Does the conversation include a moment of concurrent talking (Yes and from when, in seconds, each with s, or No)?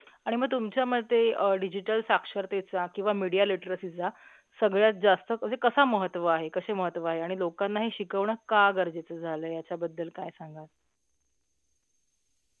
No